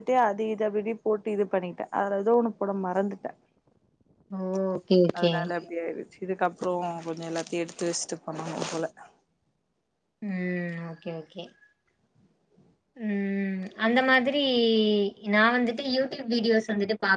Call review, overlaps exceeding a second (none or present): none